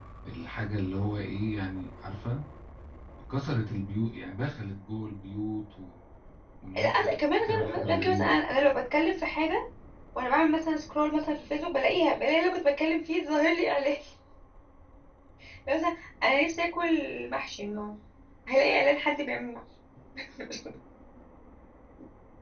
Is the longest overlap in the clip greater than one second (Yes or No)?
Yes